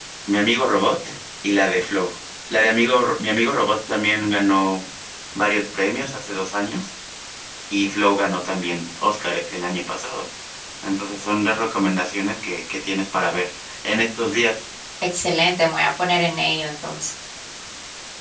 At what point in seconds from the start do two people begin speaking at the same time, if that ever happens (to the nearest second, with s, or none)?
none